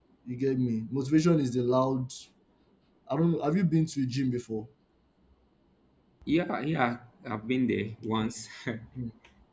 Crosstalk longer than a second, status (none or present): none